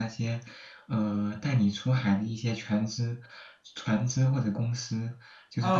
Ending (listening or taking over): taking over